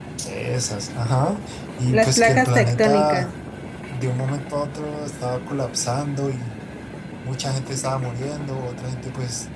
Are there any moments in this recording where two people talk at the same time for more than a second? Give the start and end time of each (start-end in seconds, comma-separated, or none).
1.9-3.3